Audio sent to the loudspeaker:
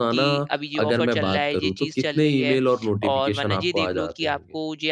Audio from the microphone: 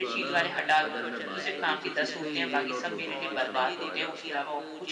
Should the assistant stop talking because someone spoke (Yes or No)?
Yes